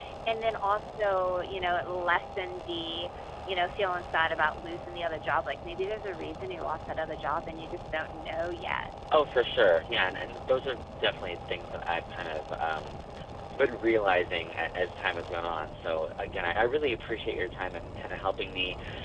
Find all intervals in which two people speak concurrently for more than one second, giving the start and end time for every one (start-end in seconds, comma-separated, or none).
none